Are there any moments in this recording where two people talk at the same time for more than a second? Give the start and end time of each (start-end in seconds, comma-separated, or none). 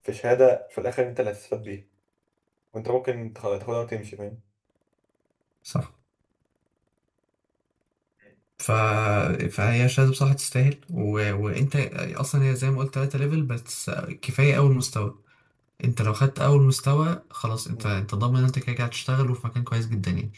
none